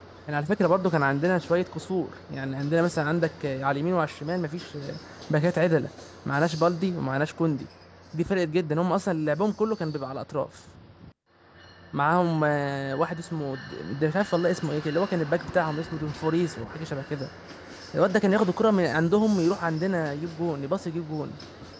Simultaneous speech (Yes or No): No